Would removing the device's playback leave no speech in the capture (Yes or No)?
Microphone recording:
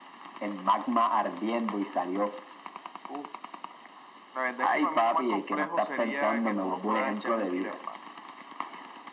Yes